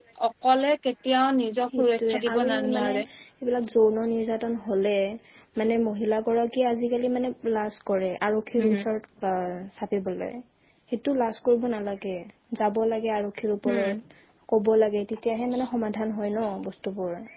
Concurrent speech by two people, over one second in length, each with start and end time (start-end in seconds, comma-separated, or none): 1.8-3.0